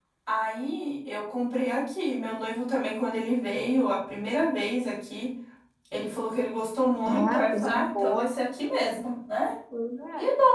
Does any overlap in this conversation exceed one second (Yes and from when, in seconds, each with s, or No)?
Yes, from 7.0 s